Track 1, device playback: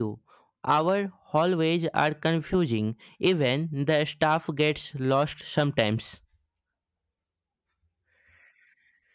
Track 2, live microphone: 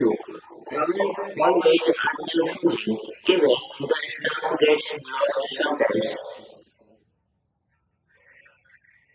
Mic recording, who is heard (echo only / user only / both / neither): echo only